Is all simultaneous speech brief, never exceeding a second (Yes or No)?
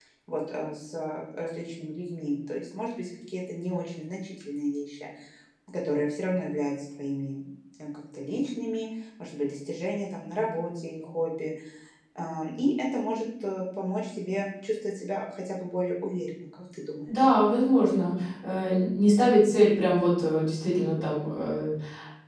Yes